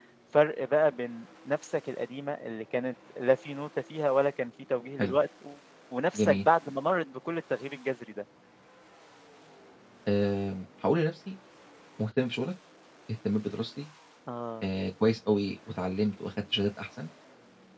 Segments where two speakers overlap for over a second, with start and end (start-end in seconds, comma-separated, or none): none